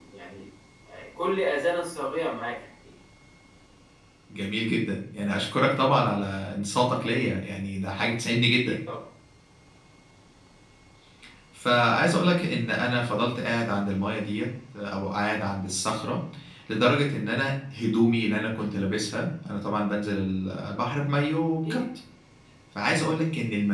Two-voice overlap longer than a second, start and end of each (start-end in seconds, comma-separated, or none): none